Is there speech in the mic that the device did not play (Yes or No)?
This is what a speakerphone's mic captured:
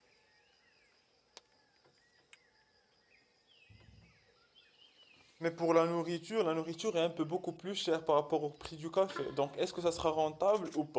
Yes